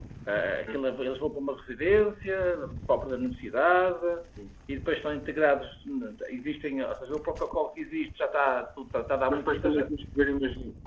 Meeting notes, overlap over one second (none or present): none